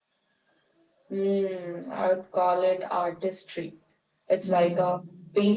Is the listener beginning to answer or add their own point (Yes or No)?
No